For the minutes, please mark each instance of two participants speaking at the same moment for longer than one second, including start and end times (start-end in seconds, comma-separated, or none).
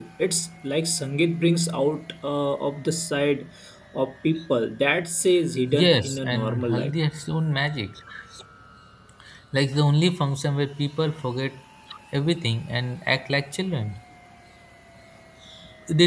5.7-6.9